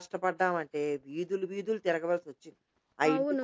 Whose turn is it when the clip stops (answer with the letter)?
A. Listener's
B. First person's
A